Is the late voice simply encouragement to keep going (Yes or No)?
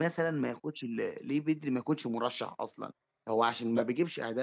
Yes